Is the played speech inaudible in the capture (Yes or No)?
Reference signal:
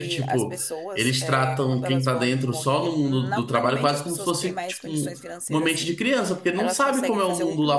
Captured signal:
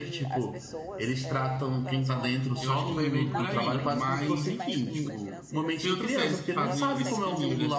No